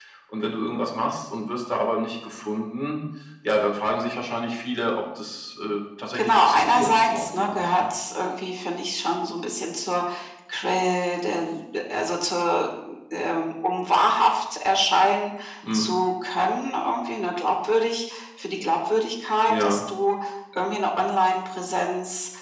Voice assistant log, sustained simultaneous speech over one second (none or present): present